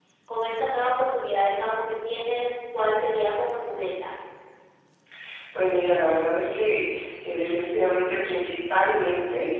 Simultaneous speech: No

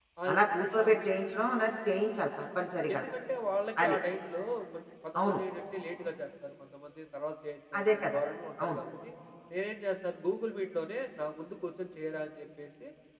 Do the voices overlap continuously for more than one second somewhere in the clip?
No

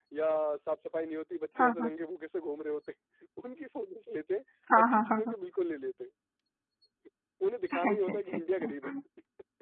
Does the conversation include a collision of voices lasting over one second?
Yes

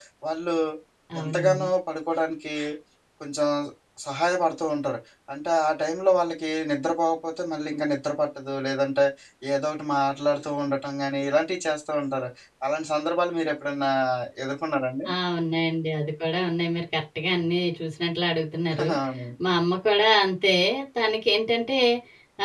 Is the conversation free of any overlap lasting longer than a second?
Yes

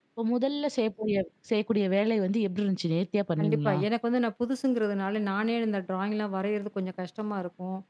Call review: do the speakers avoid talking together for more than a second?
Yes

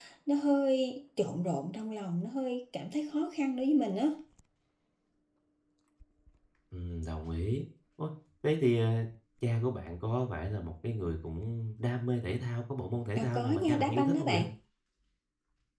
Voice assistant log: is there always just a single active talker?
No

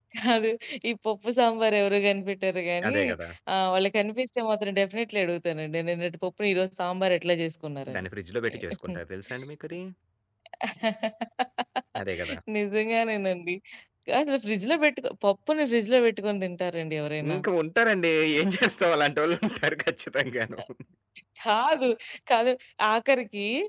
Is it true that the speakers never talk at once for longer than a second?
Yes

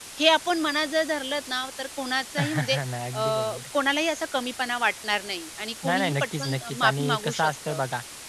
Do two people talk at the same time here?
Yes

